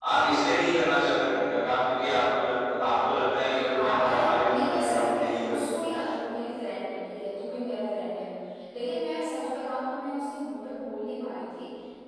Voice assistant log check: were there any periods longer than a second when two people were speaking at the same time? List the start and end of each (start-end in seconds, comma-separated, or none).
3.7-5.8